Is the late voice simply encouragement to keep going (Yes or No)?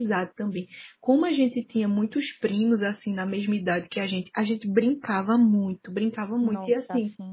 Yes